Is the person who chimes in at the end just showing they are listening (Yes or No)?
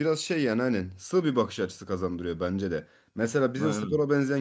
Yes